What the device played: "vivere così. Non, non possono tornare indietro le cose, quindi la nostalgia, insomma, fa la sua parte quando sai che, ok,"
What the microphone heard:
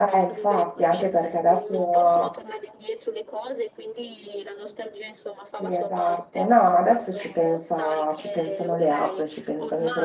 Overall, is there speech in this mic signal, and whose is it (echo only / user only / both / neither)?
both